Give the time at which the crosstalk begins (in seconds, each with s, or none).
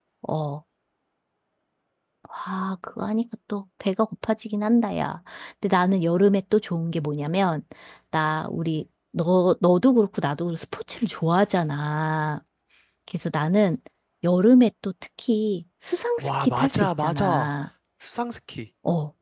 16.2 s